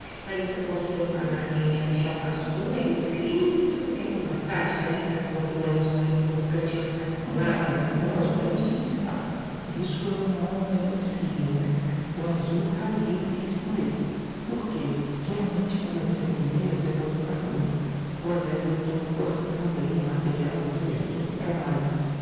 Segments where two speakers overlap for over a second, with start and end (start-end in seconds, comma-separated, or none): 7.2-8.7